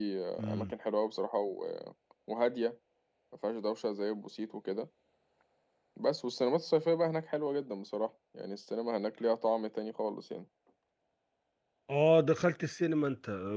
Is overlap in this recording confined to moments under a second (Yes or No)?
Yes